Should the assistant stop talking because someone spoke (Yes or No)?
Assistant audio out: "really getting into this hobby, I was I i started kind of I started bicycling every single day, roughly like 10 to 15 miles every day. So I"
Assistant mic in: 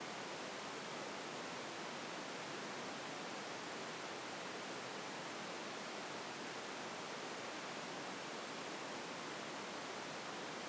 No